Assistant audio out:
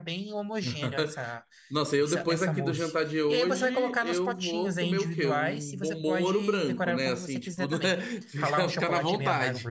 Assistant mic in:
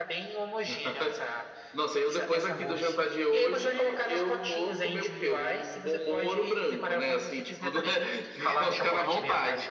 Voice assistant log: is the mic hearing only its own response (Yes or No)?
Yes